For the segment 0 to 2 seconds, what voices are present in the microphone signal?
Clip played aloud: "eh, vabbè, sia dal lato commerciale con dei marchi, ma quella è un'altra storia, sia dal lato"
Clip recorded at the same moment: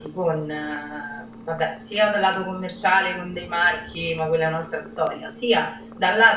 echo only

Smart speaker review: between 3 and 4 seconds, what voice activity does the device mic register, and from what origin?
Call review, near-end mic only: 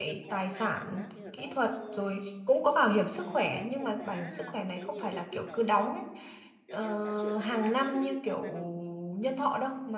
both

